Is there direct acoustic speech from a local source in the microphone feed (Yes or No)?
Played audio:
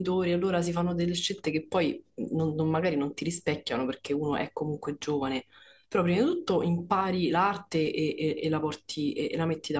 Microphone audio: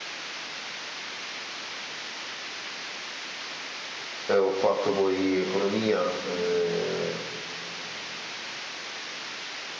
Yes